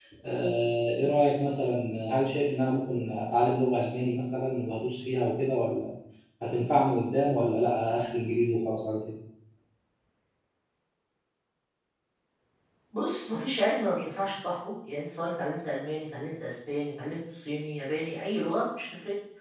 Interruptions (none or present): none